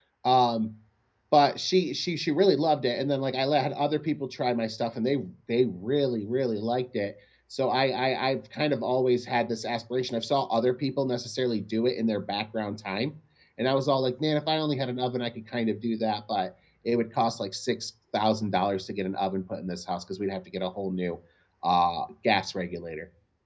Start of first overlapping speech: none

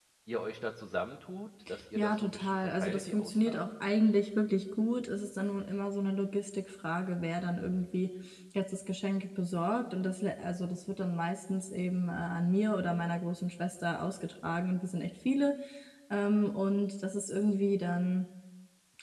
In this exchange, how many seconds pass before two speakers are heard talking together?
2.0 s

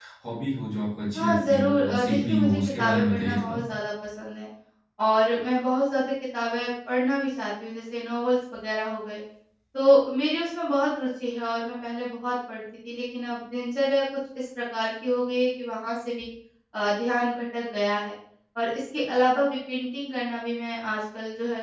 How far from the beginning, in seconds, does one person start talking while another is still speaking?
1.1 s

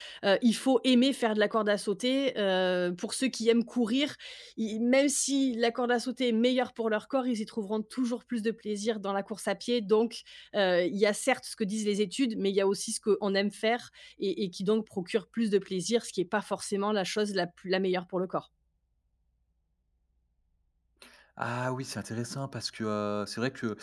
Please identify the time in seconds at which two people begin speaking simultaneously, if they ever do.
none

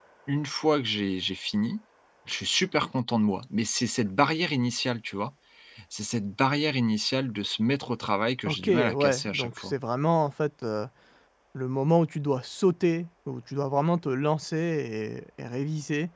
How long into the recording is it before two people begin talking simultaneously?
8.4 s

